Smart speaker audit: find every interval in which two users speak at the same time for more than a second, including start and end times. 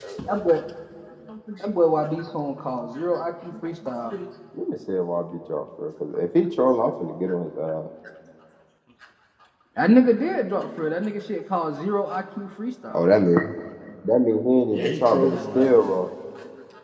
14.7-15.9

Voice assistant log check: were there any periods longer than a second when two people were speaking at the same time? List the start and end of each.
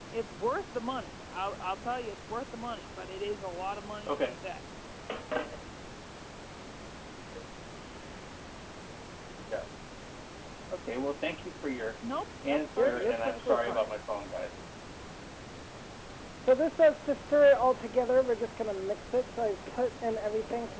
12.5-13.9

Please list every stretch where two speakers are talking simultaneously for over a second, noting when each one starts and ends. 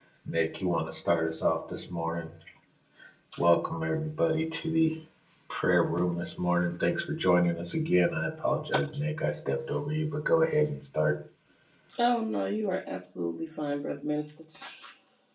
none

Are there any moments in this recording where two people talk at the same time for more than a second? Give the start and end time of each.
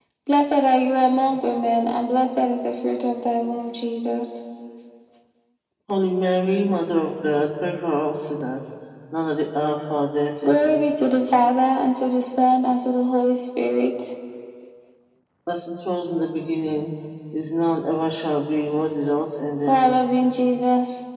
none

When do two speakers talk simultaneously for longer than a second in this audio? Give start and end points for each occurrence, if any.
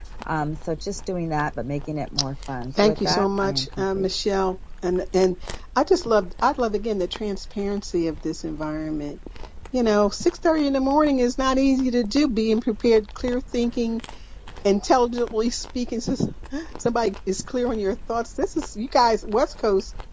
2.8-4.1

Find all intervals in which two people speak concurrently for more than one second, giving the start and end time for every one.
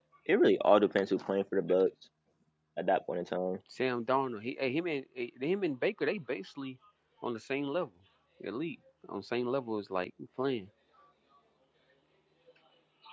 none

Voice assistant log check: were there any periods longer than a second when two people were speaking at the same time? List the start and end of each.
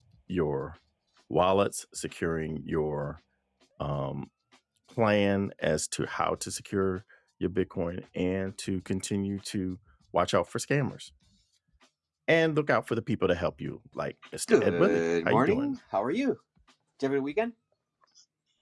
14.5-15.7

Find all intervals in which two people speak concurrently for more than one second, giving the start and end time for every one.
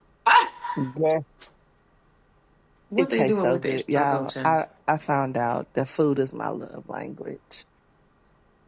3.0-4.5

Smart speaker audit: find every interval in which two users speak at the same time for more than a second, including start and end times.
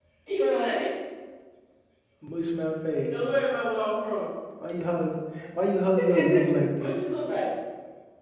none

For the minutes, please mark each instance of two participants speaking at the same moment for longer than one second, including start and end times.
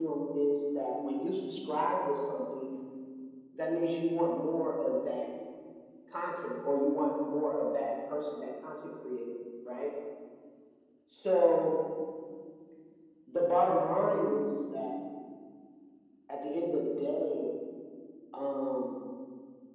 none

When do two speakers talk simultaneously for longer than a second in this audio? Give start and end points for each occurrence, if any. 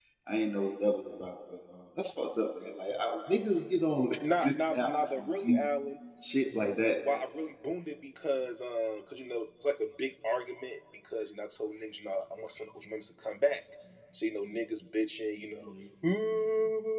4.4-5.7

